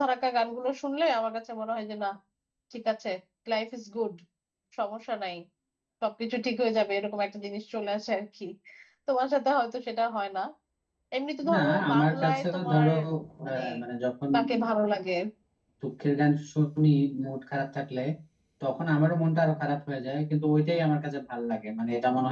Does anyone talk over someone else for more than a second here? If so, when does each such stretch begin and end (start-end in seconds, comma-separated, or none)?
11.5-12.9